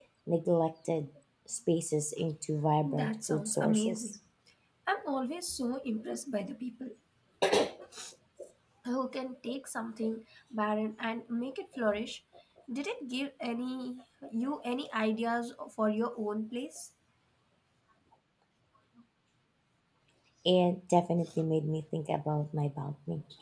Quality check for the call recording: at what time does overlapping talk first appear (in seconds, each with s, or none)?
2.8 s